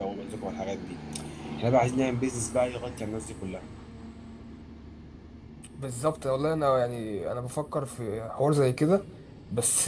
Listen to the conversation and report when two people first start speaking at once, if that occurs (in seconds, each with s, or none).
none